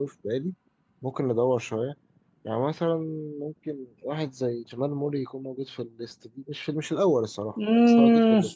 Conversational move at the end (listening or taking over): taking over